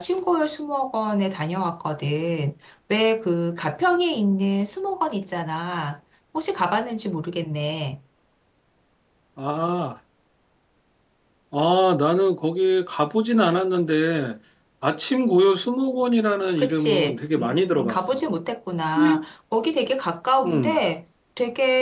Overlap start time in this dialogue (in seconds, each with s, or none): 16.6 s